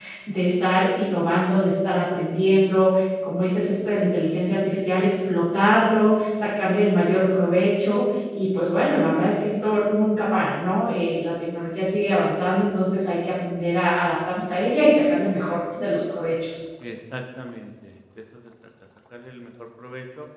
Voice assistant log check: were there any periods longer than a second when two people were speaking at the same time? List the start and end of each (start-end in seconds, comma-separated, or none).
none